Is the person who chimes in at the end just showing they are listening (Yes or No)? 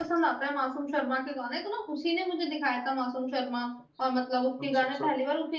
Yes